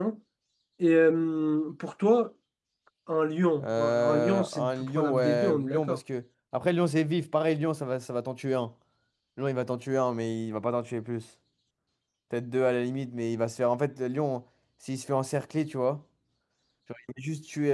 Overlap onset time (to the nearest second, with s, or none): 4 s